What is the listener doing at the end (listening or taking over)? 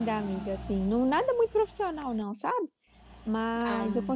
listening